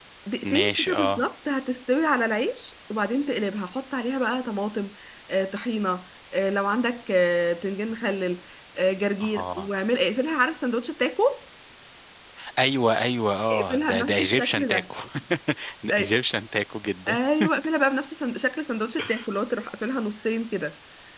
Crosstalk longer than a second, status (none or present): present